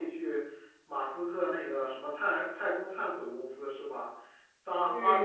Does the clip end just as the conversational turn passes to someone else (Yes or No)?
No